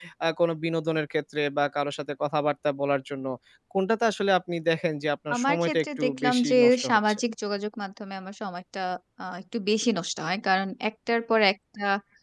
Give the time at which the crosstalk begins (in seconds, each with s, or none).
5.3 s